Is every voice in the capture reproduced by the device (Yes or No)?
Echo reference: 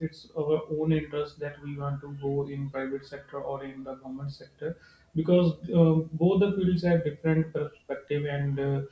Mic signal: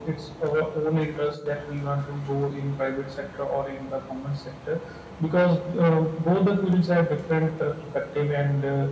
Yes